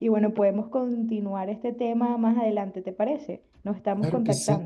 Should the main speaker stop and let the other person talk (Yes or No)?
Yes